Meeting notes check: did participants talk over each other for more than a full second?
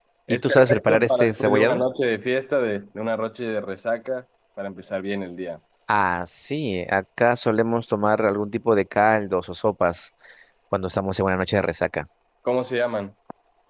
Yes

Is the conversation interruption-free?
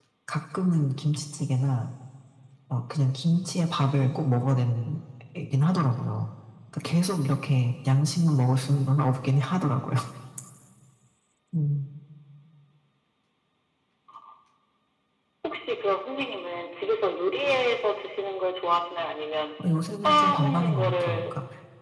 No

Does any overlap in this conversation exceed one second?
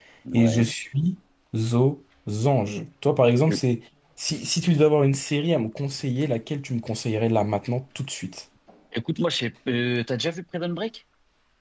No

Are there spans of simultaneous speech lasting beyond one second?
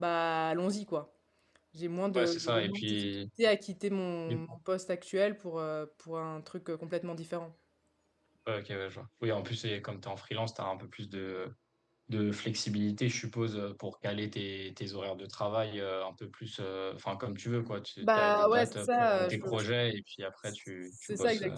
Yes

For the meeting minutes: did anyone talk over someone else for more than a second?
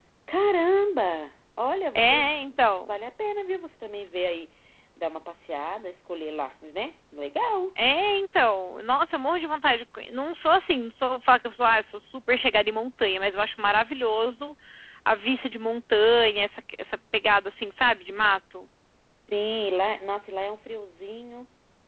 No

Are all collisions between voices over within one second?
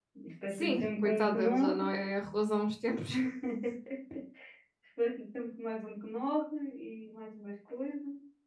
No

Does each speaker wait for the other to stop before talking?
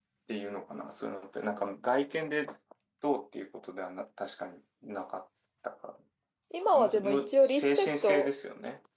No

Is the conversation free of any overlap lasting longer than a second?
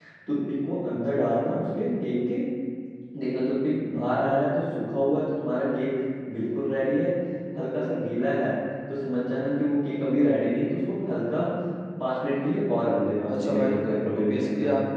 No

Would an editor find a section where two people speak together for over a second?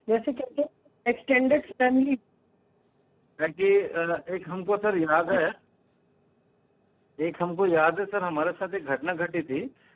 No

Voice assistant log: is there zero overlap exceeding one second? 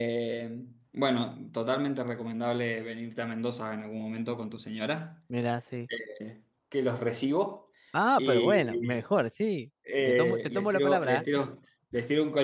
No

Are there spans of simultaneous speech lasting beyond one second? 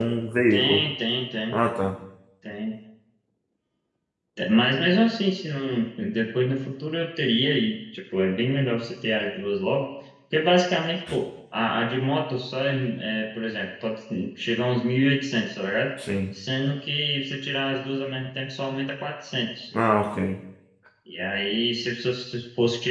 No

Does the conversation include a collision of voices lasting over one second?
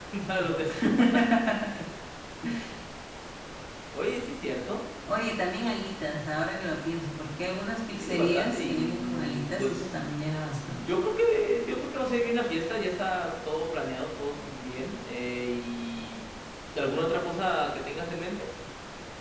Yes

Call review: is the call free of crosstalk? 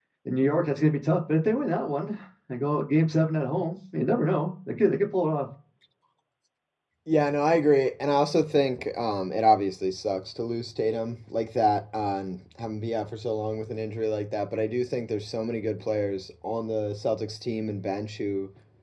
Yes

